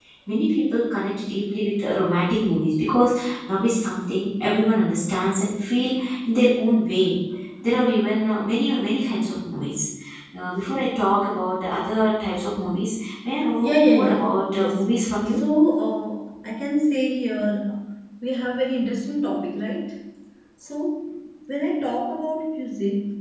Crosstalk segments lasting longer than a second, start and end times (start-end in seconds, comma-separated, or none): 13.6-14.8